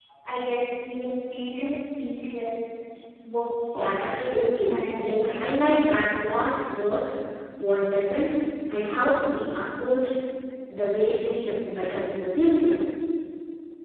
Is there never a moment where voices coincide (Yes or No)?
No